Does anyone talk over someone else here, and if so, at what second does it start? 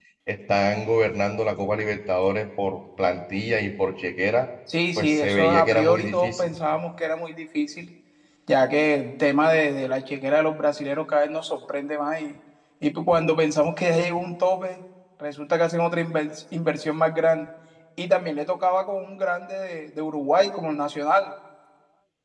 5 s

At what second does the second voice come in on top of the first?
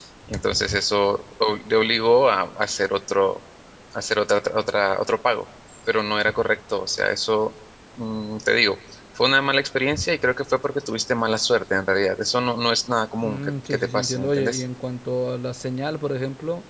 13 s

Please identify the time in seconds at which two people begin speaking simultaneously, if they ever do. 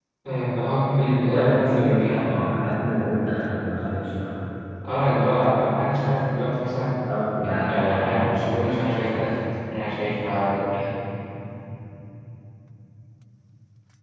1 s

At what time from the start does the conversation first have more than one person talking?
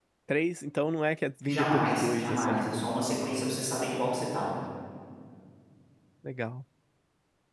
1 s

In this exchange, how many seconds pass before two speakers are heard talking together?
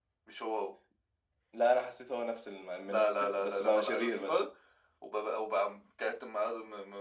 3 s

